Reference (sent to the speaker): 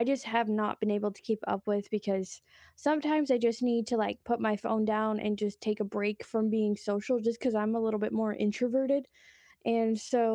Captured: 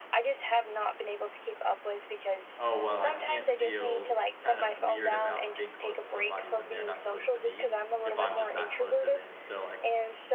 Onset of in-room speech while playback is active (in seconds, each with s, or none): 2.6 s